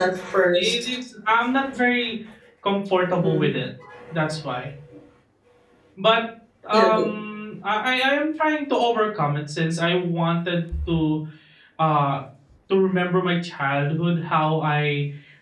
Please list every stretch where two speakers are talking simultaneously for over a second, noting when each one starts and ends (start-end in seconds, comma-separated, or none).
none